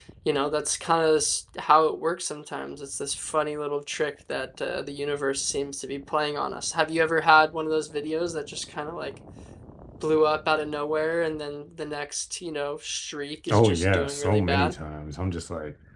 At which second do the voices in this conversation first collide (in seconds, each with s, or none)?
13.5 s